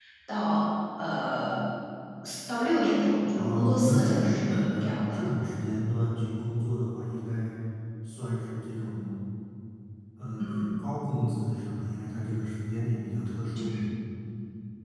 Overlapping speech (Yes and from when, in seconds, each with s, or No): Yes, from 3.4 s